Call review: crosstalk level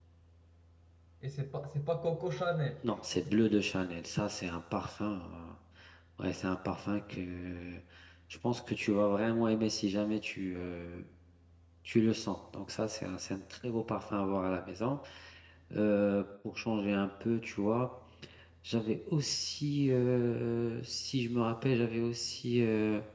none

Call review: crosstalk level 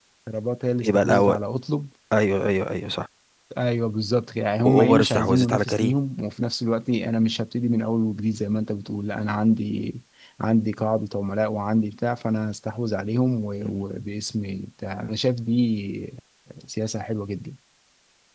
present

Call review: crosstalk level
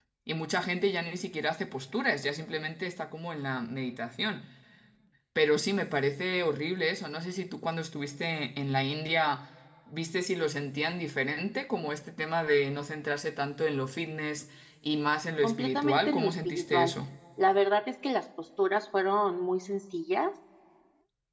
present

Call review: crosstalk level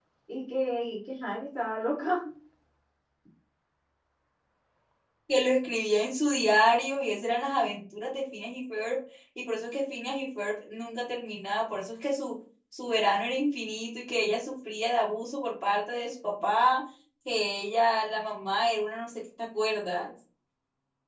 none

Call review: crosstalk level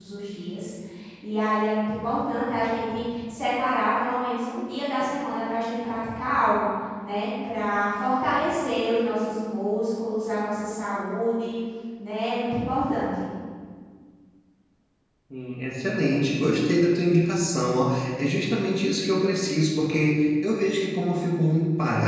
none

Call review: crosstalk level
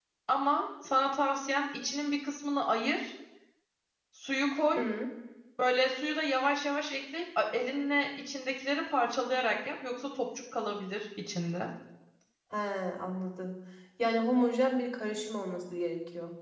none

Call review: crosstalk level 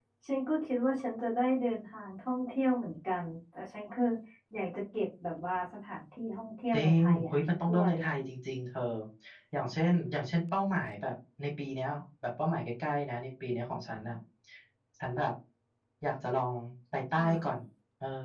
present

